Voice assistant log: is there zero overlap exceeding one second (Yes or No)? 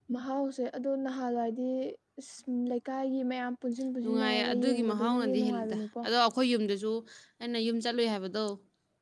No